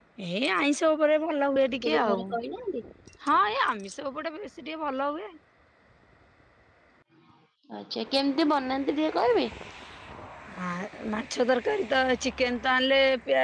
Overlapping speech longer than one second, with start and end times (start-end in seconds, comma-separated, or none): none